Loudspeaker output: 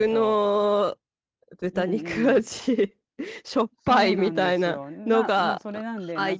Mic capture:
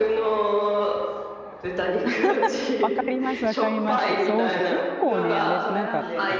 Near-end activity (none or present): present